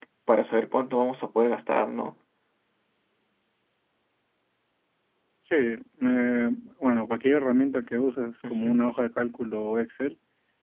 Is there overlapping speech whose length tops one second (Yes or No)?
No